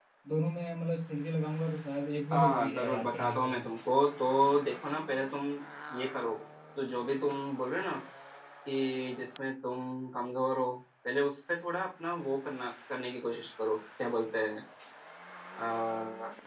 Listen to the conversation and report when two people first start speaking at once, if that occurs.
2.3 s

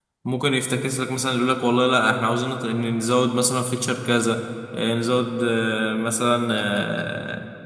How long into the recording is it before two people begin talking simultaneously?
none

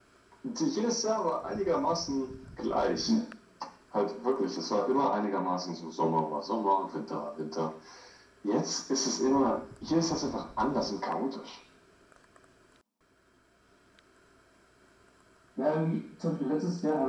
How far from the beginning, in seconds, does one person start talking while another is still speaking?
none

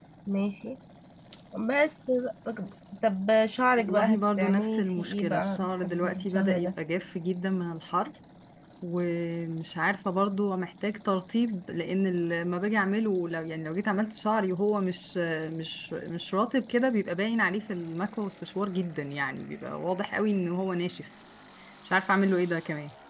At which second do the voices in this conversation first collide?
3.8 s

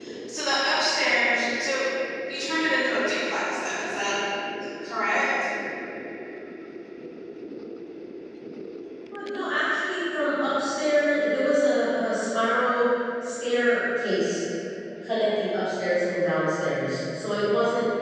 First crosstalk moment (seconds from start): none

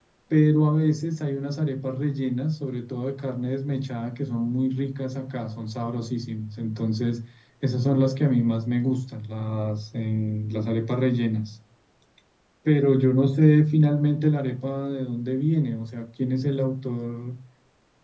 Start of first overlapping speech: none

